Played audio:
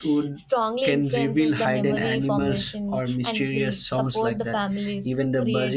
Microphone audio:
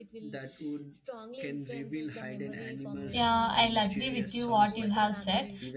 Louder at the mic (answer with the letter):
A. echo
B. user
B